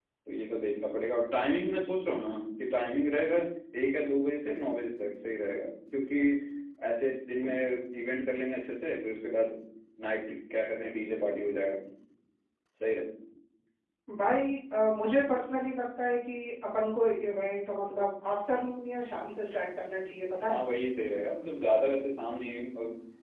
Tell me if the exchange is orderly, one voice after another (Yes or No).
Yes